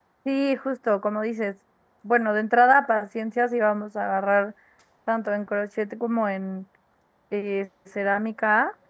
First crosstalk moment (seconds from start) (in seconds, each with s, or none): none